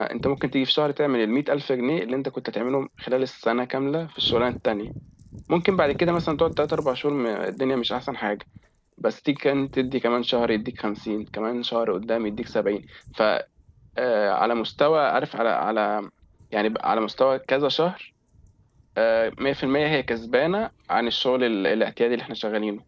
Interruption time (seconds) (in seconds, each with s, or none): none